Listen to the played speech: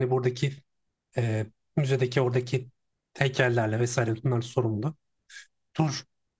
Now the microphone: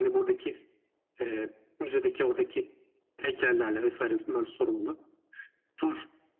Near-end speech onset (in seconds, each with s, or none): none